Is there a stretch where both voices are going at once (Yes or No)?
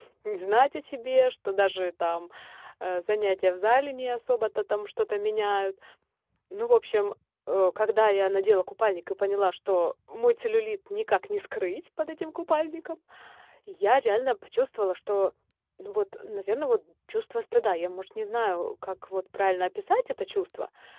No